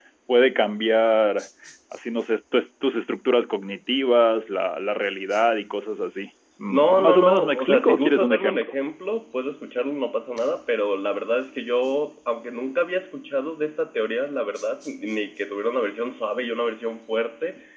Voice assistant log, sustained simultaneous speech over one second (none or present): present